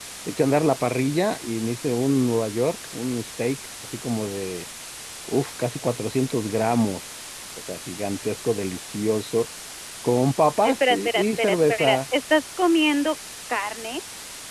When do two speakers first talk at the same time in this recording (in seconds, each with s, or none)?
10.6 s